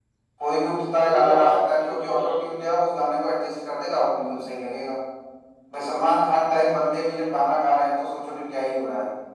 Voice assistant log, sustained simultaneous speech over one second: present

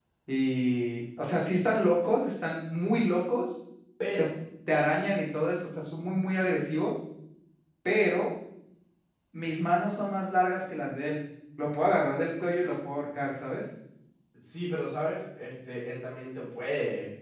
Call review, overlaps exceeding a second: none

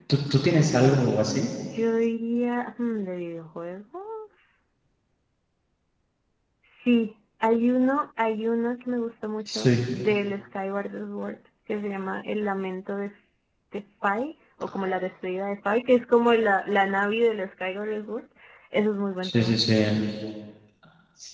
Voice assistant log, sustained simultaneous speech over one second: none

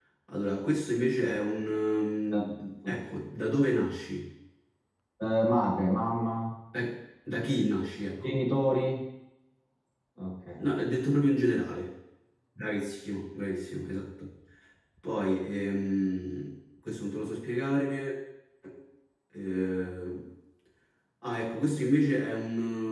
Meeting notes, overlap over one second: none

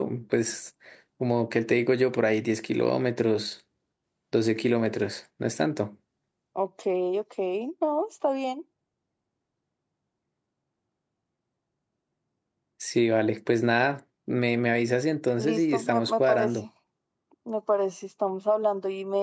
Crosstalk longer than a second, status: present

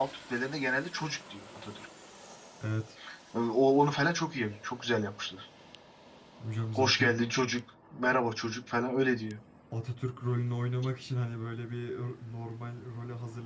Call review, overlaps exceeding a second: none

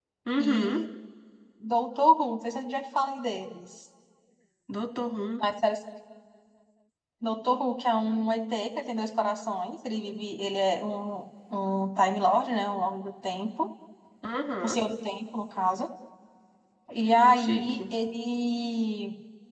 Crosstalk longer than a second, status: none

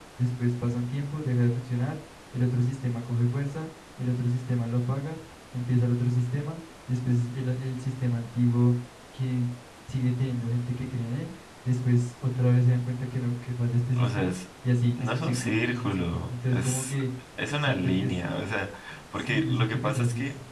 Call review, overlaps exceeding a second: present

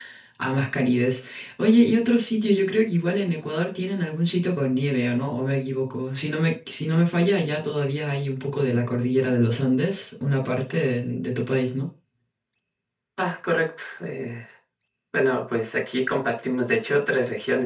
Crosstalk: none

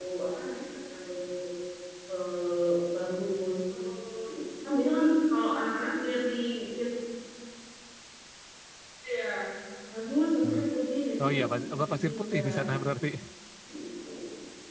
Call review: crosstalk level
present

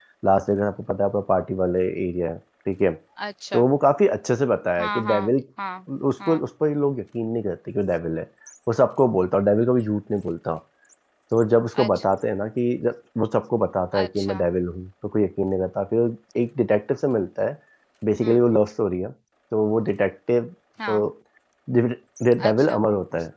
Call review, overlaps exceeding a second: none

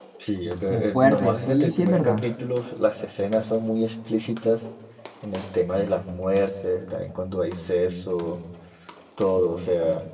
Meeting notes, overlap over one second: present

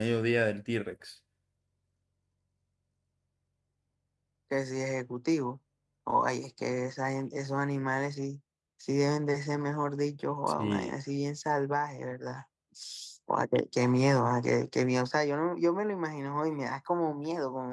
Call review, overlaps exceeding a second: none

